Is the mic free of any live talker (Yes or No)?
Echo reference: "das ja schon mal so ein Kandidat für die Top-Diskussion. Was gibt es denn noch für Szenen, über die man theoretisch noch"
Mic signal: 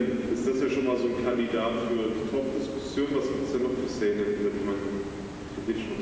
Yes